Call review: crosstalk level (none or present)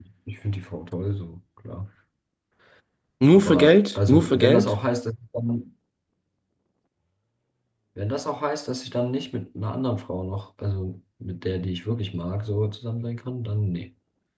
present